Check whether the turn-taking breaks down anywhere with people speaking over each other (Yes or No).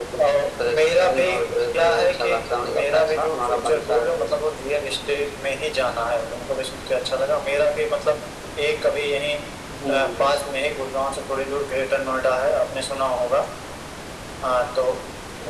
Yes